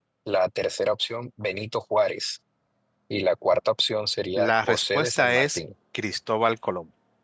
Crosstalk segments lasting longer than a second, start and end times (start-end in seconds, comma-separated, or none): 4.4-5.6